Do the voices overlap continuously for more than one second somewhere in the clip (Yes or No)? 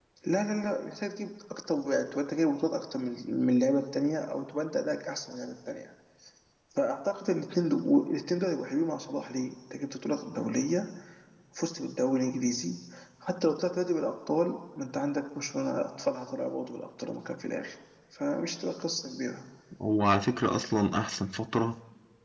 No